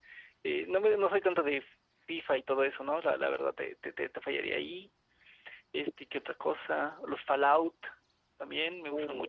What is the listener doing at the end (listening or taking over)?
taking over